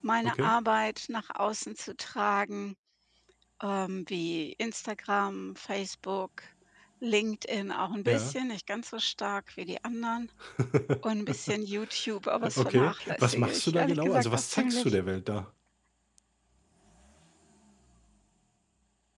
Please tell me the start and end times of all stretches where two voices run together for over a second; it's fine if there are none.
12.6-15.0

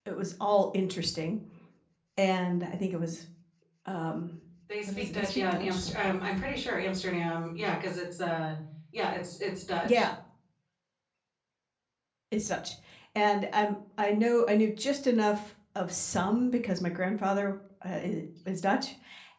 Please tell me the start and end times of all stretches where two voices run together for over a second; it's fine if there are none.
4.9-6.1

